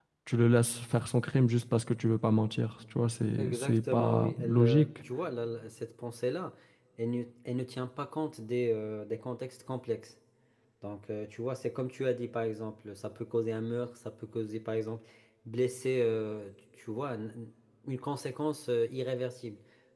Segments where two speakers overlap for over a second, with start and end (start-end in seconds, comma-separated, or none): 3.4-4.8